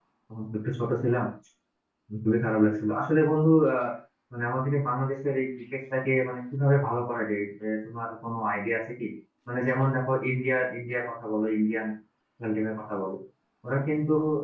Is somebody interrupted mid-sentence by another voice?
No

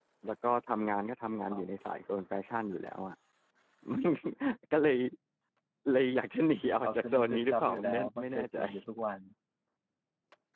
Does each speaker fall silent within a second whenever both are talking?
No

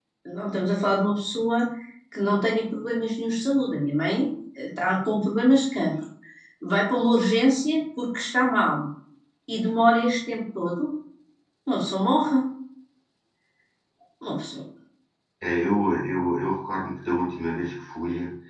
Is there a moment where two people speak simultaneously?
No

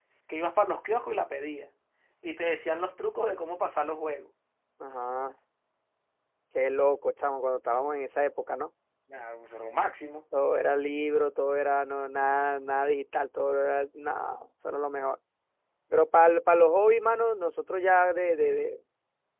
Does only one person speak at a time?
Yes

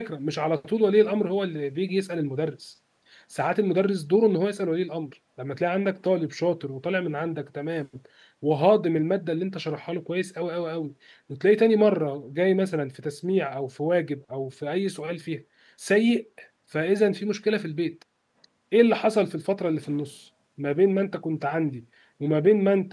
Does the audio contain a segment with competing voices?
No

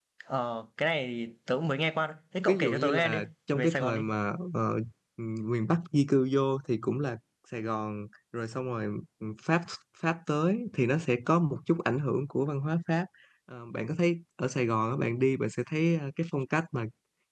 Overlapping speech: Yes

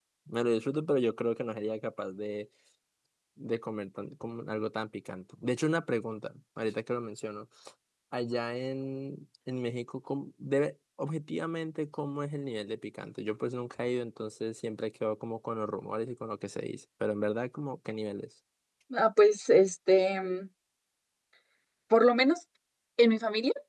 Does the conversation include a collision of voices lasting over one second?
No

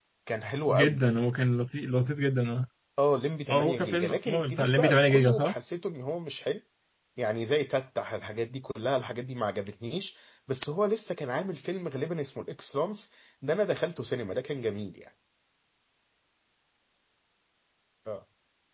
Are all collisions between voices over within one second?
No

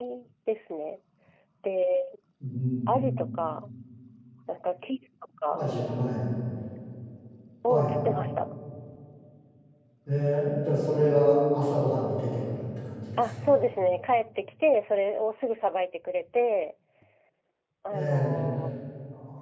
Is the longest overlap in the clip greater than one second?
No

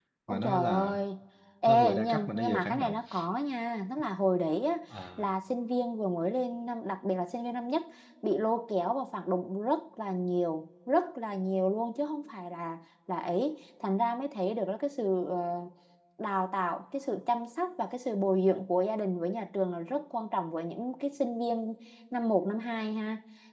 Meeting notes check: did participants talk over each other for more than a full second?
Yes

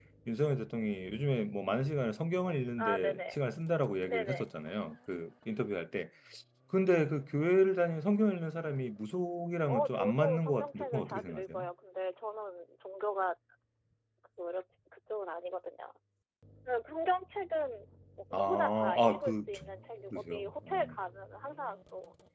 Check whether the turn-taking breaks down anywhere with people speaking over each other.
Yes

